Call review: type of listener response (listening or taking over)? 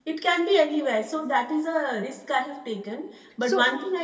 listening